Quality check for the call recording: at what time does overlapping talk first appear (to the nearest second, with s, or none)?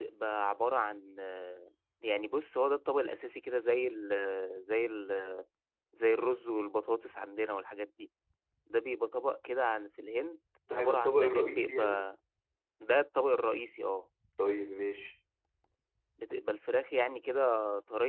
11 s